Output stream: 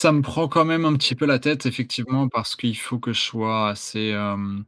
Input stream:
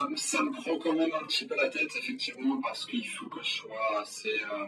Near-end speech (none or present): none